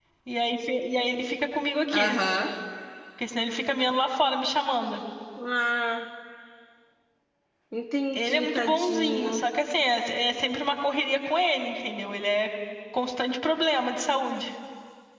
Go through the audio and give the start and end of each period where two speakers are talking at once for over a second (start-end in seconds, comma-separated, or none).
8.1-9.4